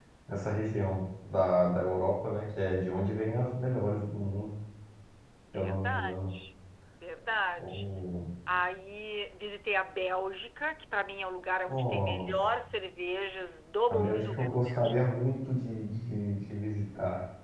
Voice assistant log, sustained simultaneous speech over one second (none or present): present